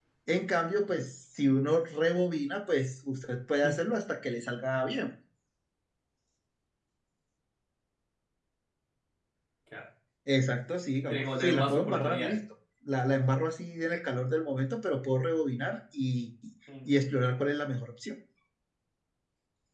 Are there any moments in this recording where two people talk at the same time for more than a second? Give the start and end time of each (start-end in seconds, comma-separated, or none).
11.1-12.3